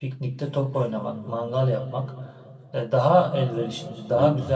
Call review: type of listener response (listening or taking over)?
listening